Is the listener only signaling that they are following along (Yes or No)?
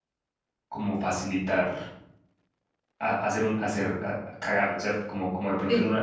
Yes